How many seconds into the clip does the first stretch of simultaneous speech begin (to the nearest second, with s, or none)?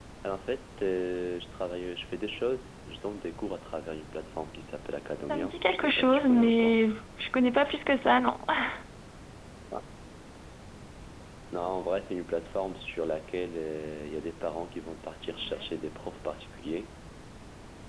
5 s